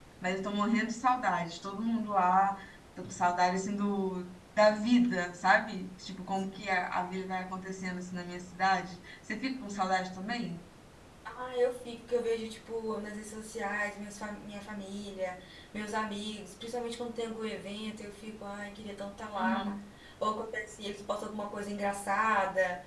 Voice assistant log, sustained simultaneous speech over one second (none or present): none